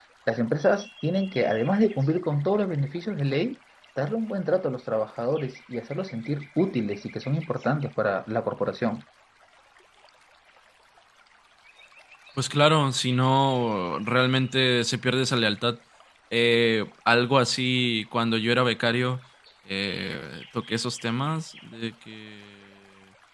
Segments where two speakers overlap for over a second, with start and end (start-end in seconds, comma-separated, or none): none